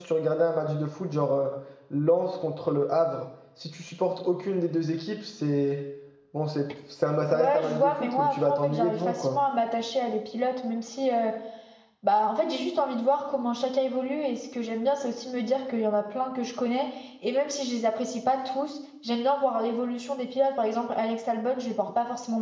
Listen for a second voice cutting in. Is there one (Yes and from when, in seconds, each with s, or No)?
Yes, from 7.3 s